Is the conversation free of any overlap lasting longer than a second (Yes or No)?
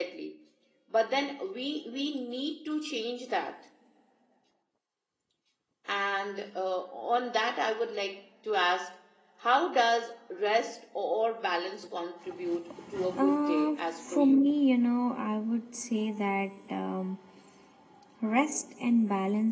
No